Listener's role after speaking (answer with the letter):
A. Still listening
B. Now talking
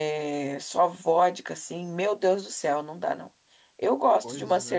A